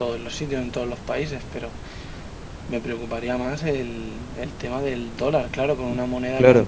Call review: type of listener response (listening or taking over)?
taking over